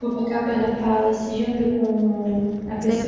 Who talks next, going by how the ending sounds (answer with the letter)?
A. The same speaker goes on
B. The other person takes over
B